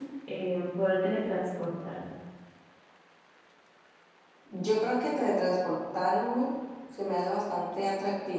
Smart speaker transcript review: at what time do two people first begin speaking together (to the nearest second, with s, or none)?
none